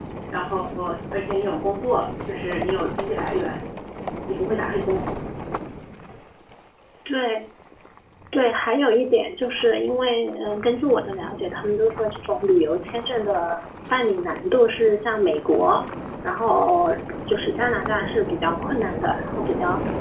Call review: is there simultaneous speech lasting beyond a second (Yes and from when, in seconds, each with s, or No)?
No